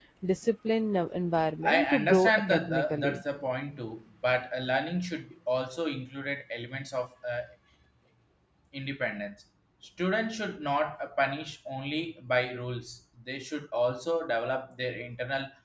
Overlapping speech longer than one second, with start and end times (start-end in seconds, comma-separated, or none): 1.7-3.2